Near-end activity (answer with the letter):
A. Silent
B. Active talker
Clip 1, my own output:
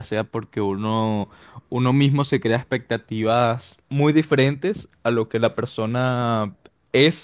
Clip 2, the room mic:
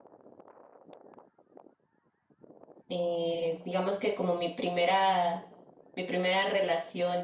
B